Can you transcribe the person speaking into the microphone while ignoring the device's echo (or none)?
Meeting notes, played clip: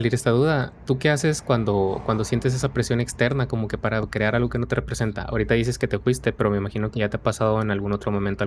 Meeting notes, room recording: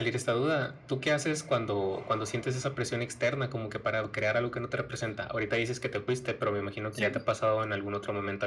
Sí.